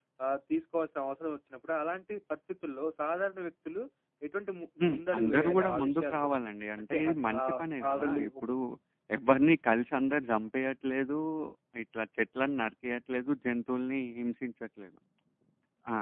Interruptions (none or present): present